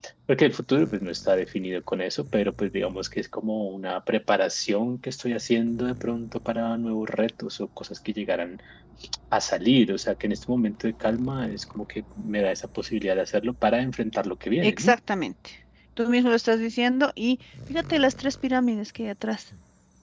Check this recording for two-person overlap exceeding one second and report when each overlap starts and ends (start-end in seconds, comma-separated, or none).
none